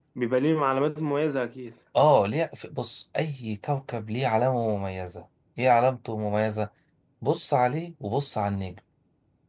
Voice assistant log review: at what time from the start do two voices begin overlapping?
none

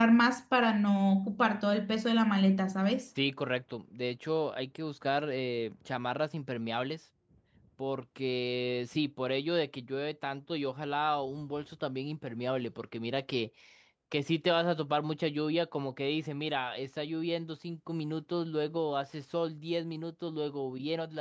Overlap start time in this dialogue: none

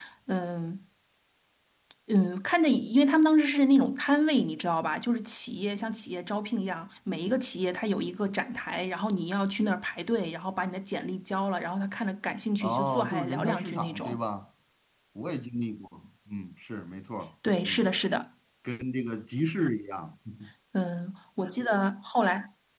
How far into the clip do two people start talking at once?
13 s

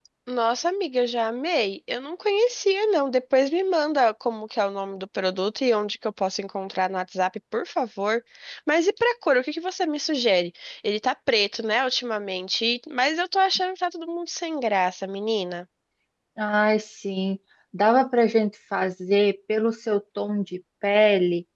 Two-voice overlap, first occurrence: none

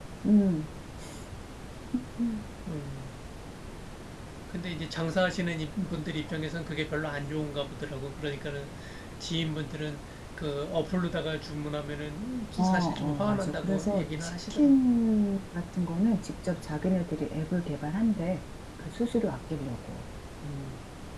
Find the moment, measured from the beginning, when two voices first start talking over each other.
13 s

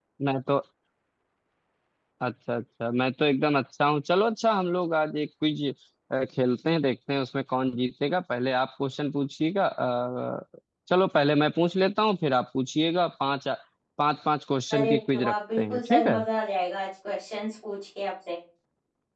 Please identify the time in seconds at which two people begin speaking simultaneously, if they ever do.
15 s

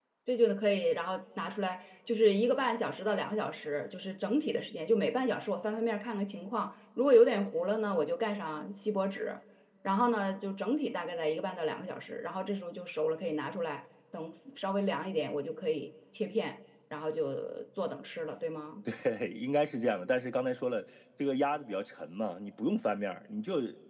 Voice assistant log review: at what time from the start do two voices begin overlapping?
none

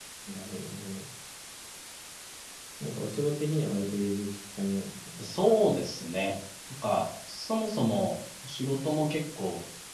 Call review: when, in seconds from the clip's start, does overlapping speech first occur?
none

